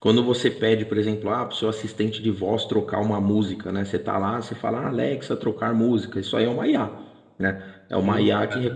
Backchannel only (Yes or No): Yes